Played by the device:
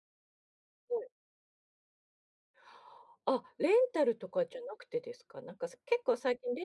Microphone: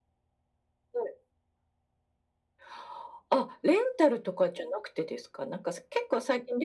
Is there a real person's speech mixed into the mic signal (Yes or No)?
No